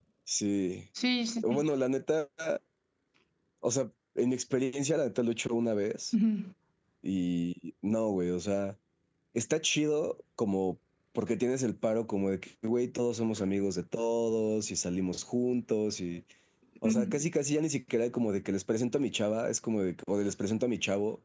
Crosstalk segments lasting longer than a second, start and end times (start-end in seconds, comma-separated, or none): none